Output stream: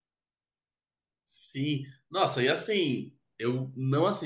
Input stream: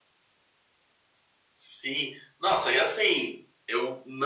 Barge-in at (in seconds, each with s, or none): none